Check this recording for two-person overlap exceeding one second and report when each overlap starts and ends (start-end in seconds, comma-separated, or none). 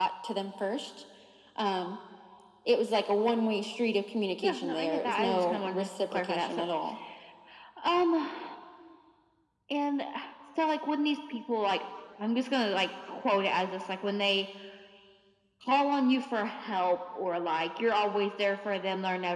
4.4-6.6